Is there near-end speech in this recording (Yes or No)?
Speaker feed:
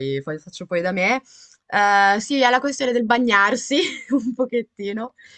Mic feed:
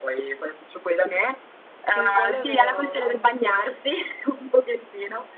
Yes